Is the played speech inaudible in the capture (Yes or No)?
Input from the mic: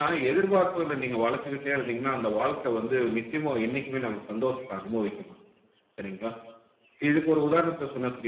Yes